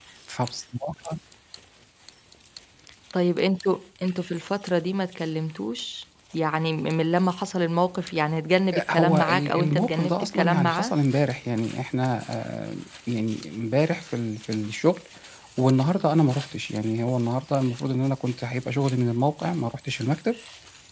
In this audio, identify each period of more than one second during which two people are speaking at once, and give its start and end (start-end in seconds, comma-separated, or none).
8.9-10.9